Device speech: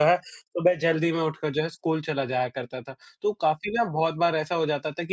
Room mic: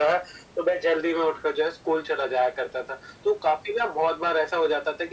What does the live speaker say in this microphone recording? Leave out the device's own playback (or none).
none